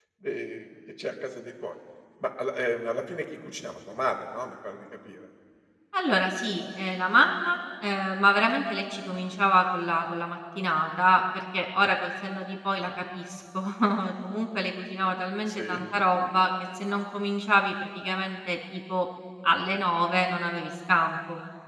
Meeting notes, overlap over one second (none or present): none